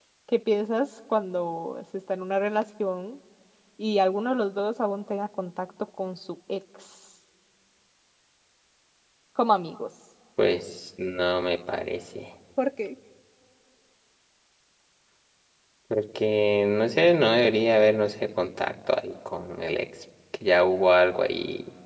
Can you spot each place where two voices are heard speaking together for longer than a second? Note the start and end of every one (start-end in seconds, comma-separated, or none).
none